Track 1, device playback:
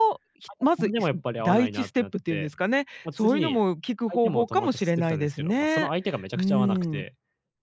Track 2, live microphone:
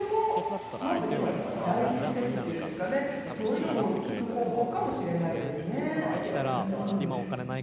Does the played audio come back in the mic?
Yes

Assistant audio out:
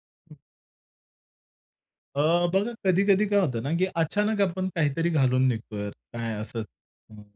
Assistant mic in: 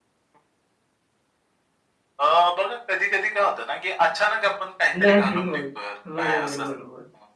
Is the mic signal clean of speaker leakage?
No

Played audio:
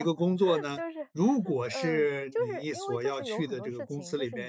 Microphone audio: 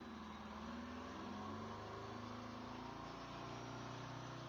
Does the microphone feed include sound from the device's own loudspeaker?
No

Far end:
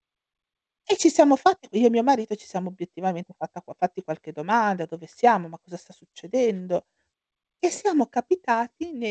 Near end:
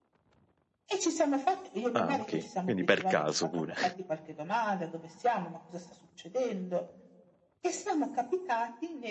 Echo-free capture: No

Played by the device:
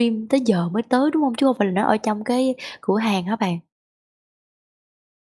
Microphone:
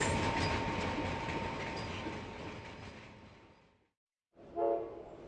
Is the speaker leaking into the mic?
No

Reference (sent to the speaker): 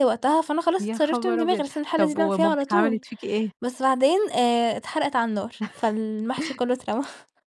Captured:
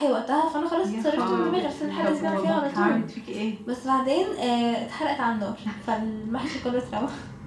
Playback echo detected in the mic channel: Yes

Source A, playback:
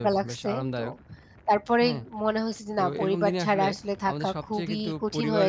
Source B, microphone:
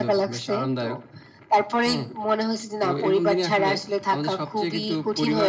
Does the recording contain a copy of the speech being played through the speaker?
Yes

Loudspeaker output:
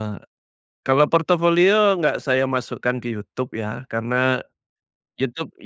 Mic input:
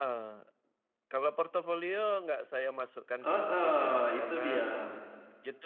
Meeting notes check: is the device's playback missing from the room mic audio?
No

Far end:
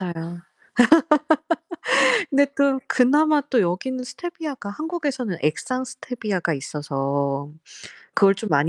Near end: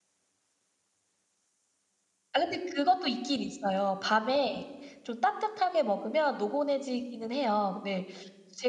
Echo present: No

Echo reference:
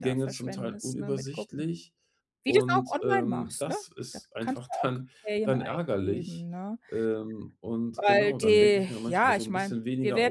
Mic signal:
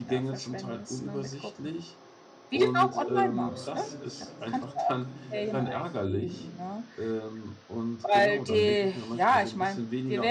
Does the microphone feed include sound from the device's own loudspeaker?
Yes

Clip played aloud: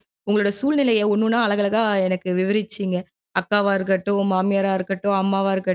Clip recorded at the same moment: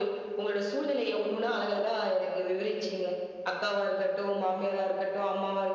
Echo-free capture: No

